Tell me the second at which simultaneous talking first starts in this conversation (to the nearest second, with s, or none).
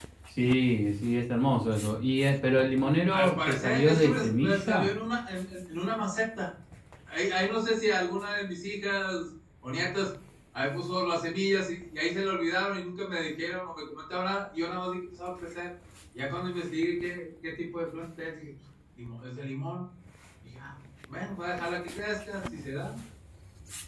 3 s